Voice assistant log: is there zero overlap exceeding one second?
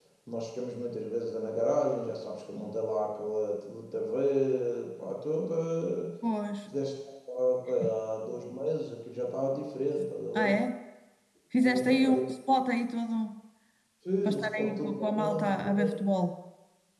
No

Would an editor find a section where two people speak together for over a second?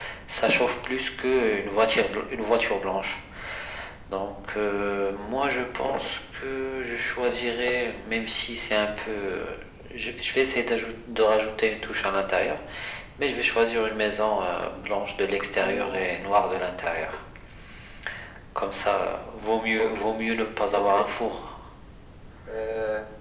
No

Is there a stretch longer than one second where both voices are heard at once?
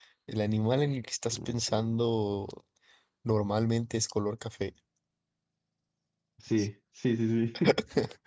No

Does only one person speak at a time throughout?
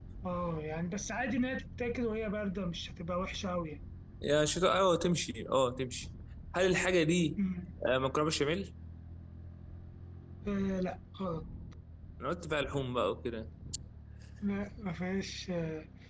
Yes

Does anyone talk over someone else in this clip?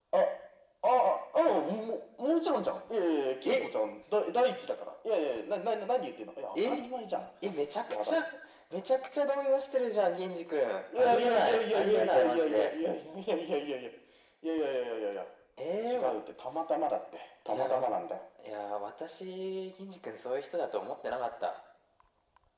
Yes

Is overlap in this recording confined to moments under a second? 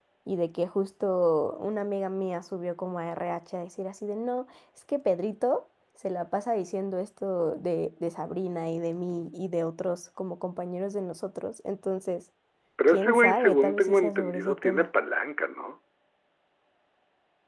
No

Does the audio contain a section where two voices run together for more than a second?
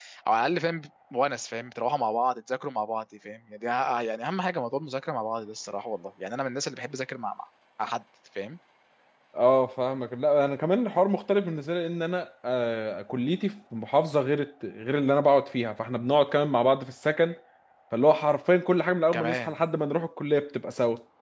No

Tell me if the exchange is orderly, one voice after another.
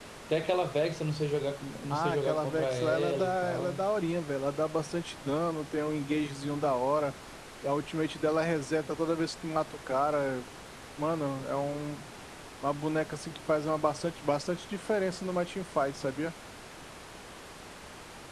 No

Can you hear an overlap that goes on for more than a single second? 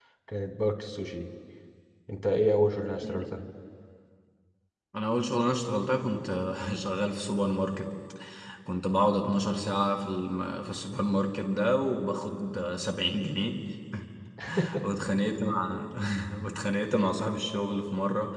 No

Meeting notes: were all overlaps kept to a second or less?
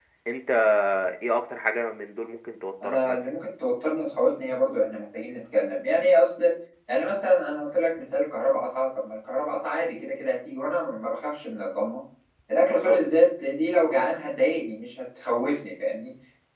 Yes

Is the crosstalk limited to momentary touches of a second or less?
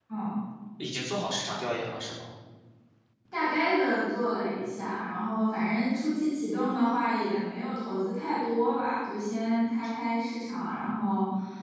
Yes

